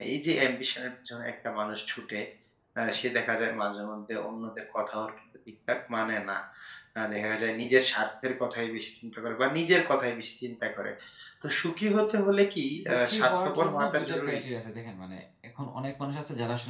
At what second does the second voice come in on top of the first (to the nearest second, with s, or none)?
13 s